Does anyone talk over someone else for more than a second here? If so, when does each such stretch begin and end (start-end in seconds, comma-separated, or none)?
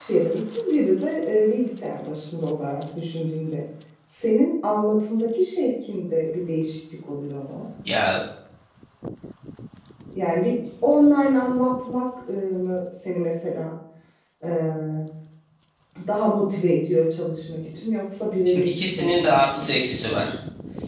18.5-19.8